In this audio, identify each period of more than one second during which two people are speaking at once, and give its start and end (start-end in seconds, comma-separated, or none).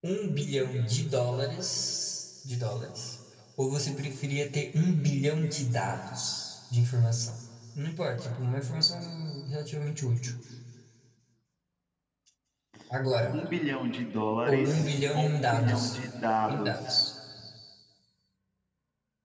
14.4-16.0